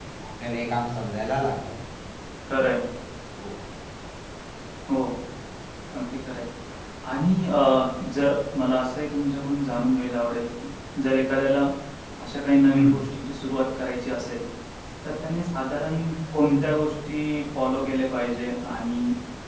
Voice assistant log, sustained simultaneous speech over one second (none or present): none